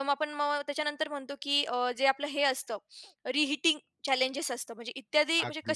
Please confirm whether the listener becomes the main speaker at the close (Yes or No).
No